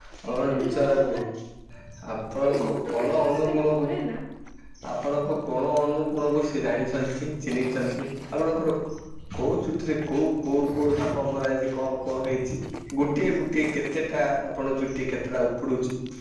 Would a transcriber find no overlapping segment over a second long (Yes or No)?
No